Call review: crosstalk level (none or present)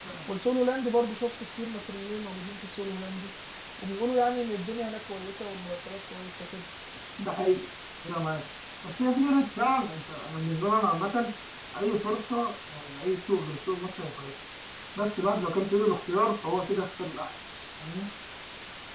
none